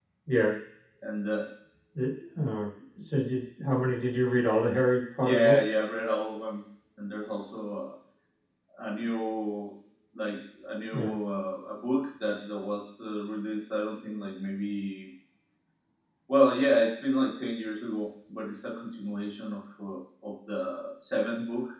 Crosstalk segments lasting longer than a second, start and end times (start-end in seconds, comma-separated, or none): none